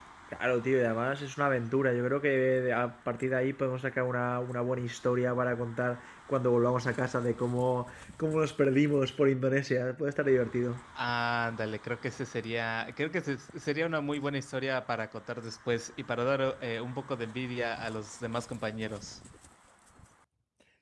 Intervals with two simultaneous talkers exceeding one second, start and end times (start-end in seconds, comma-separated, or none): none